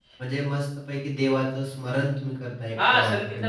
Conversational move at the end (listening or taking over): taking over